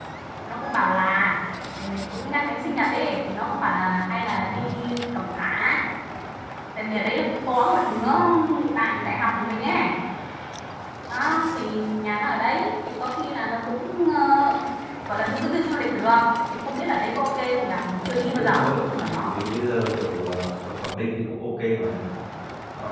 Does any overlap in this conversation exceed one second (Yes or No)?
Yes